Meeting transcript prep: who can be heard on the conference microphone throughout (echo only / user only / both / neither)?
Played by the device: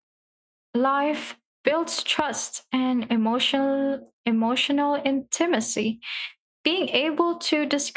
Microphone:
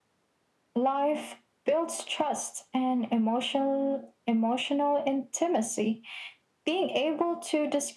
echo only